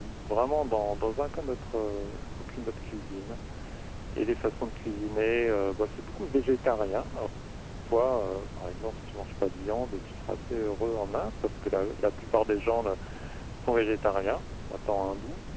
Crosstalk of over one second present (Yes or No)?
No